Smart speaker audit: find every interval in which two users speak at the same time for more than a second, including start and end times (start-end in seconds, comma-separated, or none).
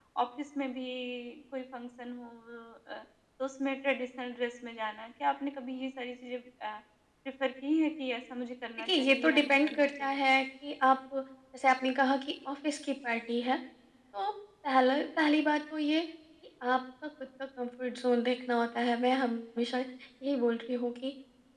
8.8-10.3